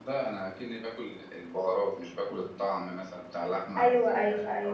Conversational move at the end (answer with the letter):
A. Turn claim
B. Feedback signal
A